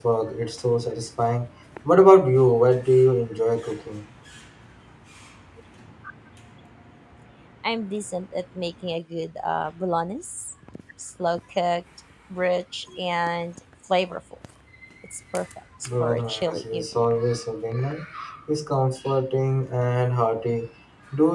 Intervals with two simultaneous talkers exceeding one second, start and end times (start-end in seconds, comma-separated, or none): 15.9-17.1